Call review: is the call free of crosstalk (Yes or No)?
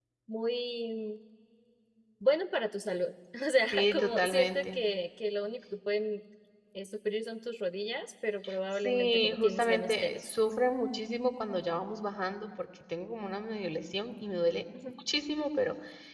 No